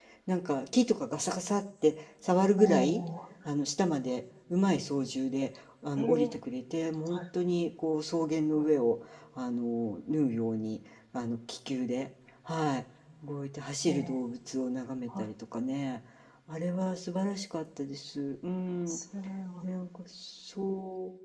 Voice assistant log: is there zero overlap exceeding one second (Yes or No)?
Yes